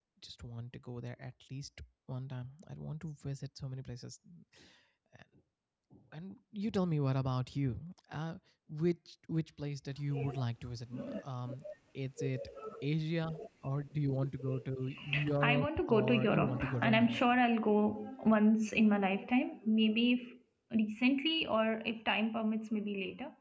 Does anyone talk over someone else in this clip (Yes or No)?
Yes